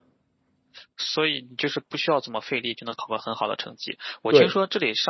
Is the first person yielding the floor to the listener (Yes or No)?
No